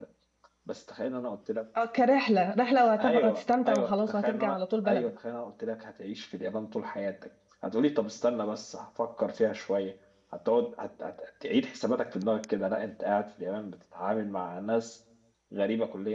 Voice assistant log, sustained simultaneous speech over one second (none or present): present